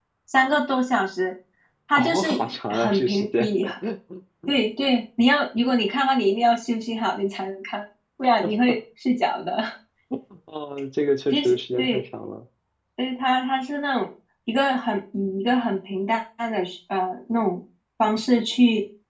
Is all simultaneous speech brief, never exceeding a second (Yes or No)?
No